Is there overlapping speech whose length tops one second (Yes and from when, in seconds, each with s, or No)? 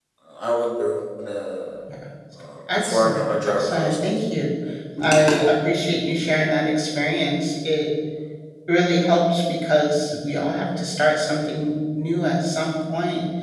Yes, from 2.7 s